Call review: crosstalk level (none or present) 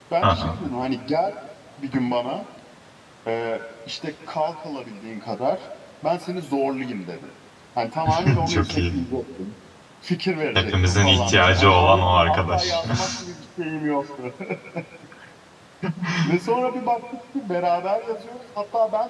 present